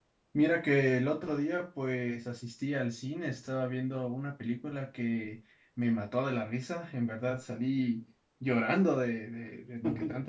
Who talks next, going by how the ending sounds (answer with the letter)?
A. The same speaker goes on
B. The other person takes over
A